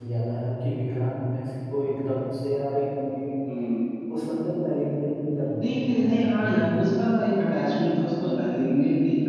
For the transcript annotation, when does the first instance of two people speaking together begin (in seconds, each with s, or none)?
5.6 s